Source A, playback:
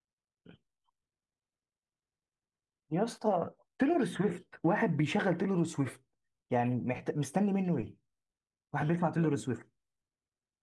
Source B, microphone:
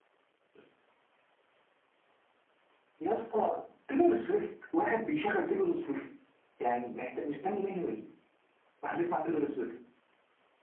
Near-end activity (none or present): none